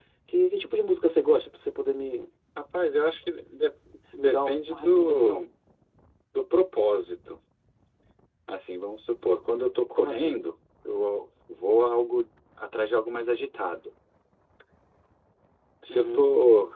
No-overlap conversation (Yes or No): No